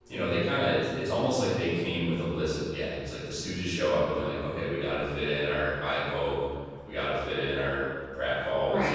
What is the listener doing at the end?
taking over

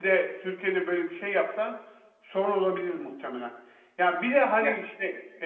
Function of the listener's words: listening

